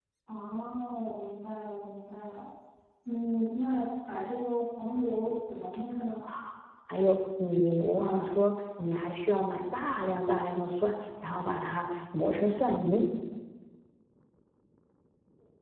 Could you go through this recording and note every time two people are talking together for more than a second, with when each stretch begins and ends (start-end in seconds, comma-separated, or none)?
none